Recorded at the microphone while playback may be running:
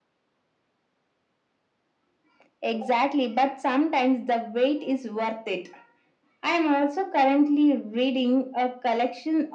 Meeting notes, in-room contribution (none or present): none